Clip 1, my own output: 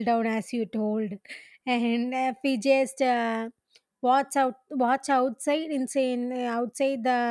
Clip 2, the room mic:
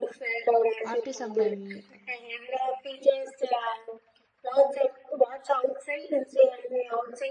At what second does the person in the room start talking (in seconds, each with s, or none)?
0.8 s